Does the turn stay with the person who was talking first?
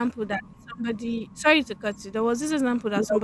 Yes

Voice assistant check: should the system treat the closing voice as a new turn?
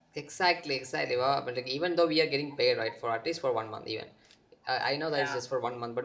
No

